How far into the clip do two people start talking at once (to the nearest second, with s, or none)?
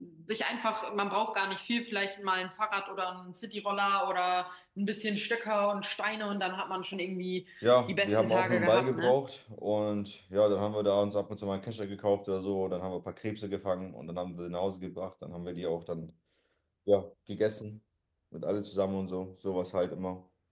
8 s